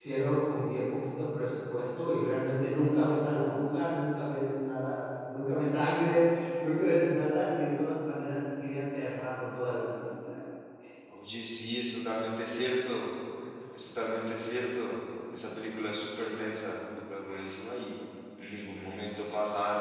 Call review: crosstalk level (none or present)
none